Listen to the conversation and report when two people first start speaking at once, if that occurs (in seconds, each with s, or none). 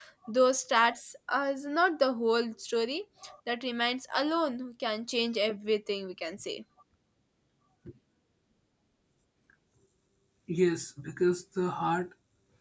none